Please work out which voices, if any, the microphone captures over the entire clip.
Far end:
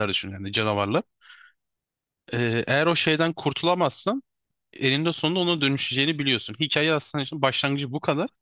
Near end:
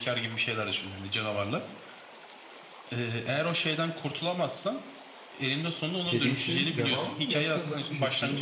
both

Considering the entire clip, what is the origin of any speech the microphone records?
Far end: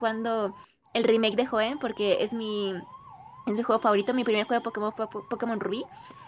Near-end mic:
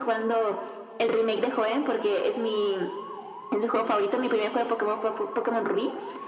echo only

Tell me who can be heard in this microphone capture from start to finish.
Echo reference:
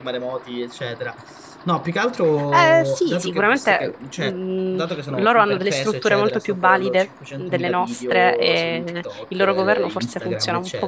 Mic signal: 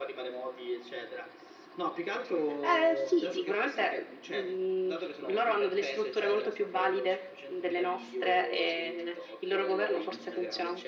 echo only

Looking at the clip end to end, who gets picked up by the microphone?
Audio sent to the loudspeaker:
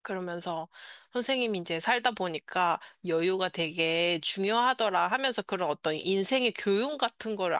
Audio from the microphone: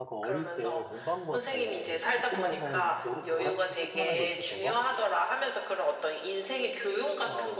both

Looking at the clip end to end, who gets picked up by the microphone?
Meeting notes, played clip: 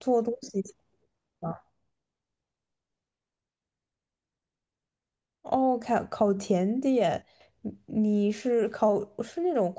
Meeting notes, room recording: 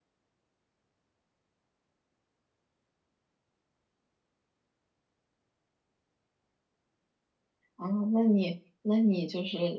user only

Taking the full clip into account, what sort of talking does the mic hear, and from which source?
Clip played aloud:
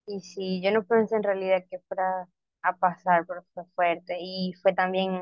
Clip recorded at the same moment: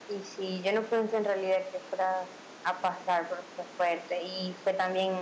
echo only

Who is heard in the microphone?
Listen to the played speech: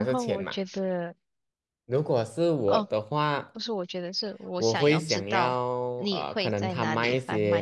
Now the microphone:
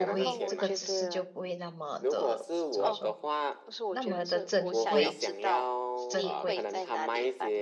both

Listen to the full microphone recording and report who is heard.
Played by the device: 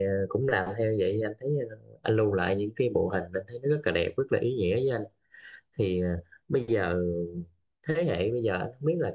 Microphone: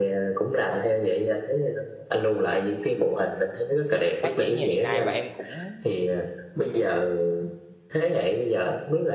both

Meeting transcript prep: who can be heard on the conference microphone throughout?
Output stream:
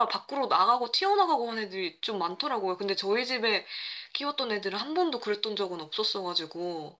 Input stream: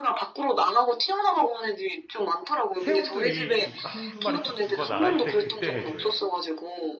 both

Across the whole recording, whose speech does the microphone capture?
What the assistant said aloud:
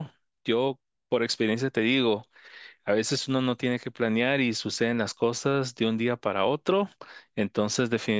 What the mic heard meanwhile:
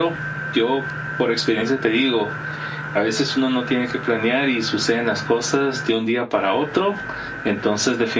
echo only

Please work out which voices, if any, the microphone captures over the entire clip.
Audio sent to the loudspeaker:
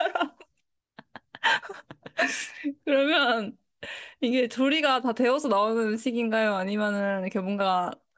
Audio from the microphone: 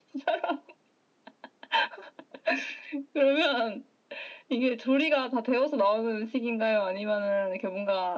echo only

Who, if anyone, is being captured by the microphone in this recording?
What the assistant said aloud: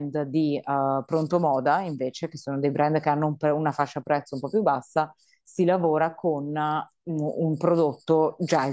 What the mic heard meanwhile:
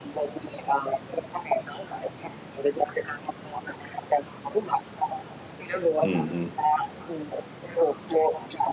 both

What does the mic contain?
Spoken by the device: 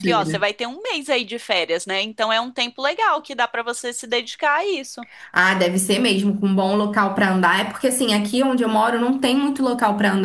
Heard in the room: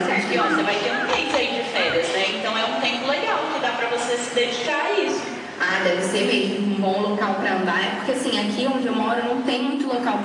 echo only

